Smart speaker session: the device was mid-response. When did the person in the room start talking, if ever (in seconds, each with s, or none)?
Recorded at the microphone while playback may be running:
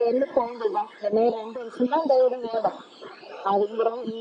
none